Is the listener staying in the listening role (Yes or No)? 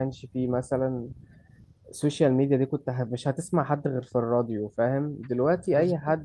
Yes